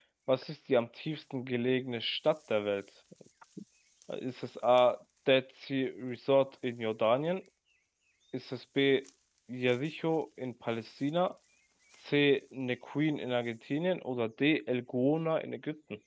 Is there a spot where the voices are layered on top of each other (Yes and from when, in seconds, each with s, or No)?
No